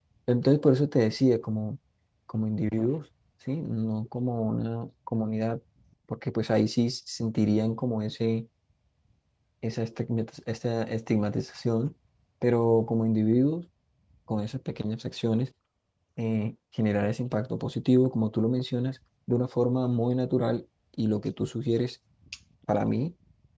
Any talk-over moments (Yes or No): No